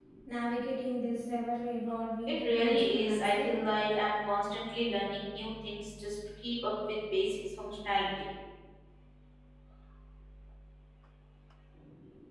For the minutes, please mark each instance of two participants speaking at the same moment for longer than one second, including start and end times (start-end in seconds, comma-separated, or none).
2.3-3.5